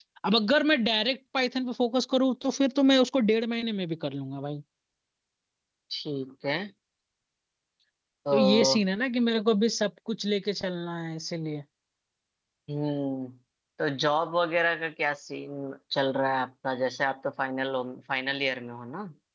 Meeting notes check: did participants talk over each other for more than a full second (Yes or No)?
No